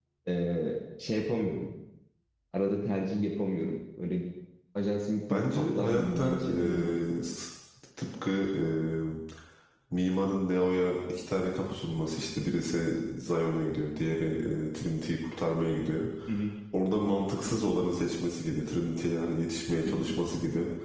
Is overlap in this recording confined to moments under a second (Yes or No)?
No